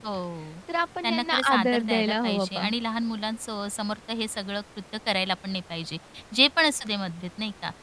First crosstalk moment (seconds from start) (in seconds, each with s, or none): 1.0 s